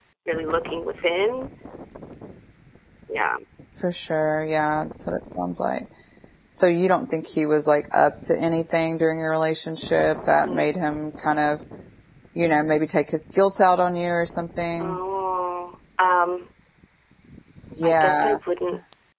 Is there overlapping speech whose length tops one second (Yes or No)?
No